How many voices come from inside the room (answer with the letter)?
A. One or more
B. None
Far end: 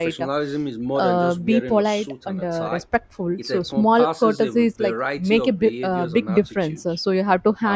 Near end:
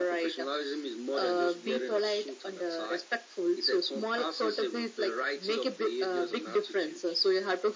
B